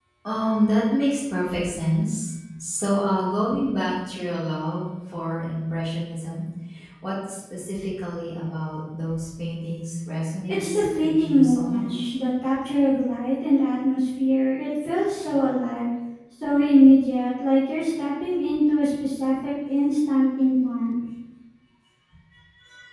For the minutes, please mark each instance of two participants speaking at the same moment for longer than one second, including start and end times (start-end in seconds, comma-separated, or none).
10.5-12.1